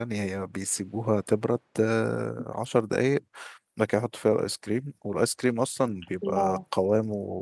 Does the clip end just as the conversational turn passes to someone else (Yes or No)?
No